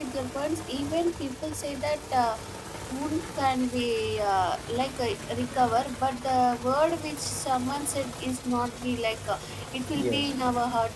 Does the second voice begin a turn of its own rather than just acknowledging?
No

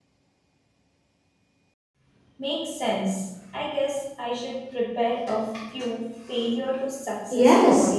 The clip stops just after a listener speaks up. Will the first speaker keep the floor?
No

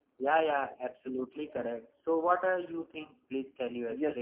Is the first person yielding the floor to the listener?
Yes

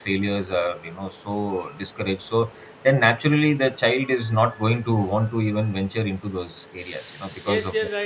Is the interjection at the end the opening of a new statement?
Yes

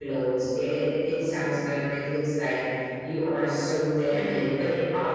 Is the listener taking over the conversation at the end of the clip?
No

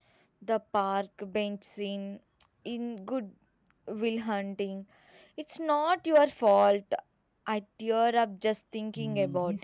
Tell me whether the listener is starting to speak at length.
Yes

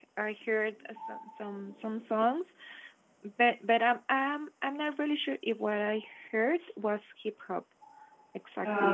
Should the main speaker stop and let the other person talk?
No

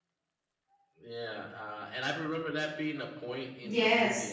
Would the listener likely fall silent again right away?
No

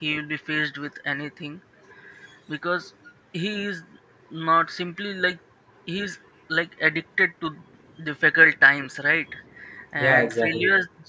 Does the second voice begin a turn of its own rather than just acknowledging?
No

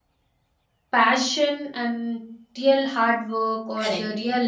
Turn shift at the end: No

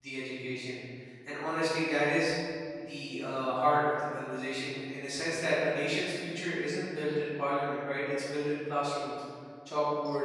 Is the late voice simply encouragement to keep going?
Yes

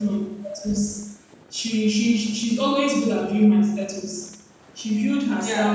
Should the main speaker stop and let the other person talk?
No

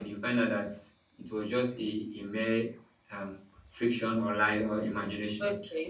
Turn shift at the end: Yes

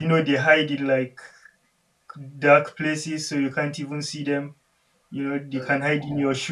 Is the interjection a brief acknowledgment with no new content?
Yes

